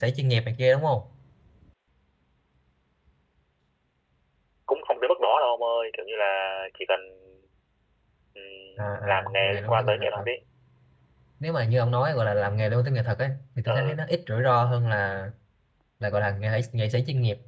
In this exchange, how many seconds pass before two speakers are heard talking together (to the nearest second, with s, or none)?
9 s